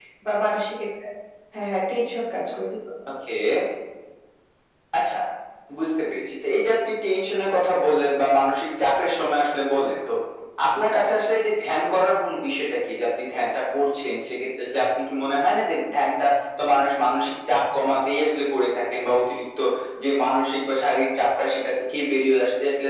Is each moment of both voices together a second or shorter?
Yes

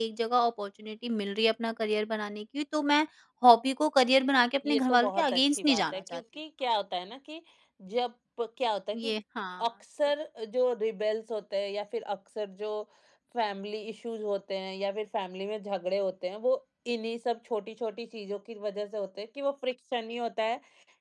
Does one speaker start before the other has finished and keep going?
Yes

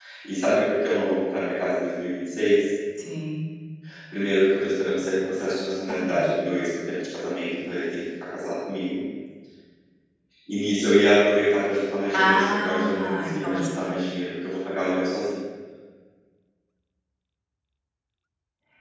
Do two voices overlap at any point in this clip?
Yes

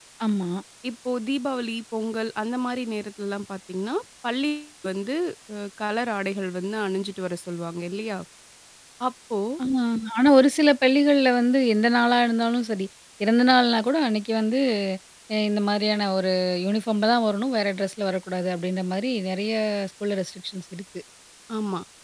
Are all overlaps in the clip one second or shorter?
Yes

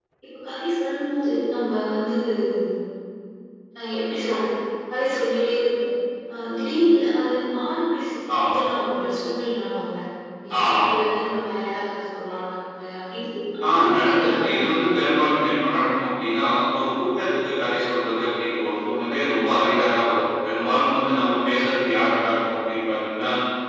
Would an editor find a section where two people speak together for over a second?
Yes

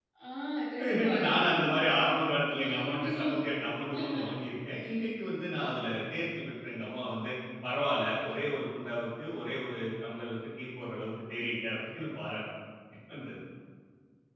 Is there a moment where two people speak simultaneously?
Yes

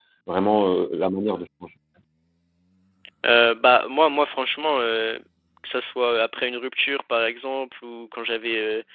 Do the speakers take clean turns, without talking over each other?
Yes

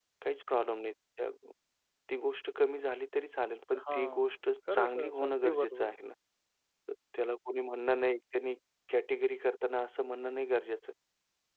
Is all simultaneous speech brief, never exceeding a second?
No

